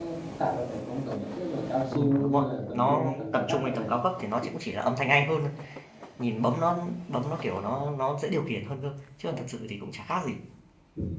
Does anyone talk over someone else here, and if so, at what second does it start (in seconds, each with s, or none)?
1.9 s